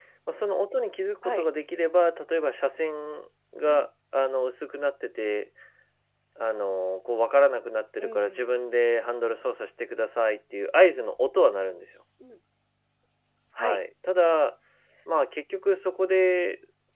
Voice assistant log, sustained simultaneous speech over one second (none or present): none